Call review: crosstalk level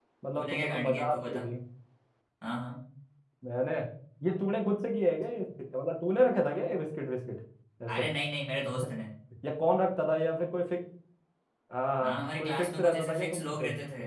present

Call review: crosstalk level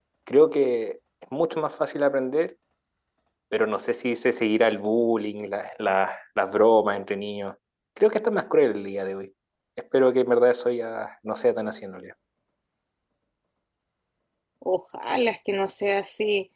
none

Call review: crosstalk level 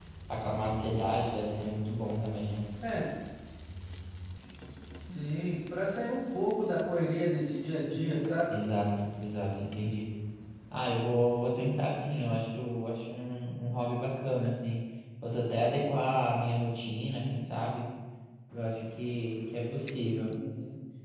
none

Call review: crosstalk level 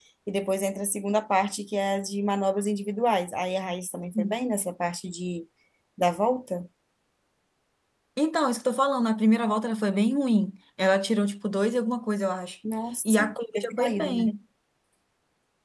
present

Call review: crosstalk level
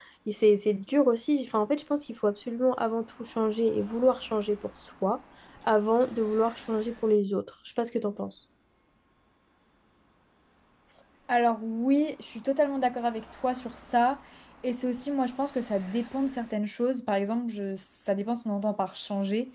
none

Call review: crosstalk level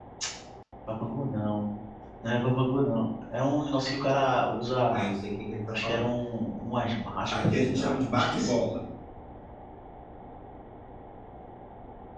present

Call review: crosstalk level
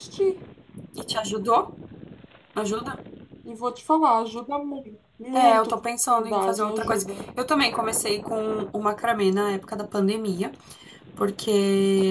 present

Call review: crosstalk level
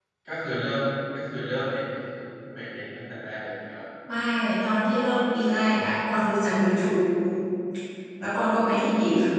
none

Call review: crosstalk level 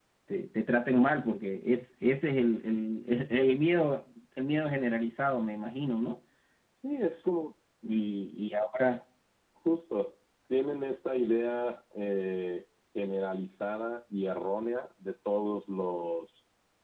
none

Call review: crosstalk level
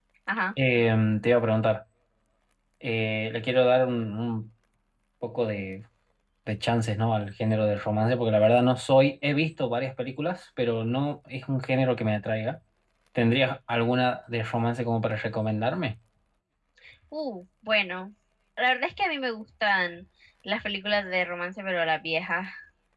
none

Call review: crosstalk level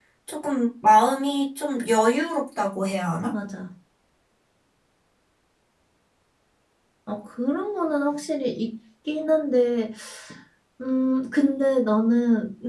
none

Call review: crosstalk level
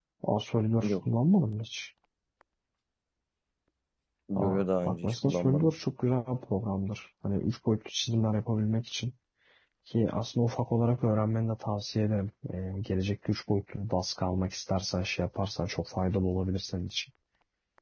present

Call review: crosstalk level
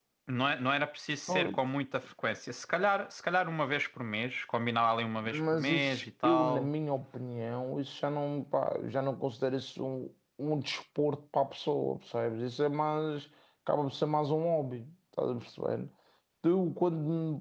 present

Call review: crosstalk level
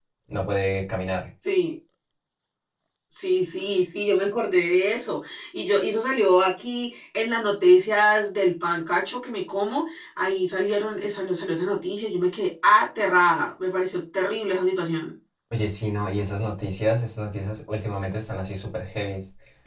none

